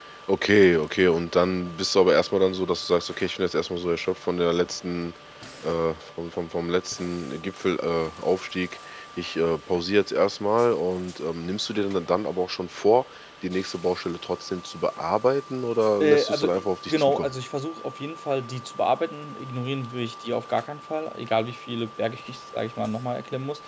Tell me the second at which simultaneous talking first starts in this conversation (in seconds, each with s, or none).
16.0 s